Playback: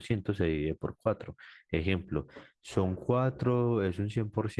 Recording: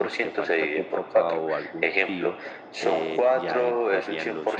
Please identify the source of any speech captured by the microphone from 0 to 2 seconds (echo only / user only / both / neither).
both